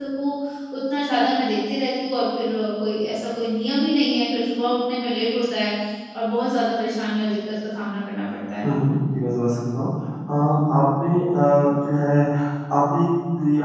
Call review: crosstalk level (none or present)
none